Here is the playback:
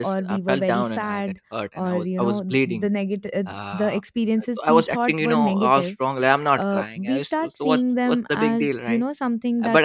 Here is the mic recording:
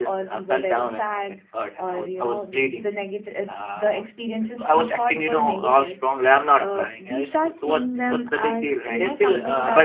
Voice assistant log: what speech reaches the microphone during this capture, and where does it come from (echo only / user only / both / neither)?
both